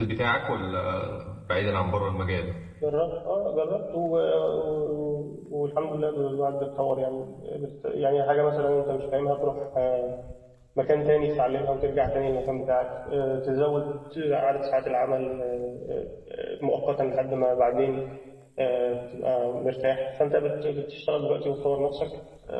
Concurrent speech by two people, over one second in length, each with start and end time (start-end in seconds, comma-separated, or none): none